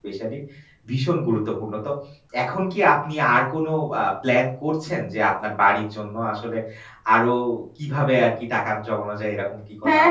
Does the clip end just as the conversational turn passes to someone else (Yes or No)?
Yes